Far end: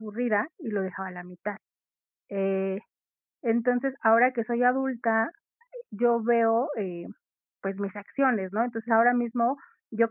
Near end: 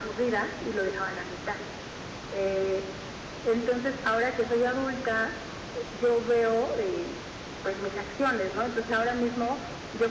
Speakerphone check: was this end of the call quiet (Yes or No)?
Yes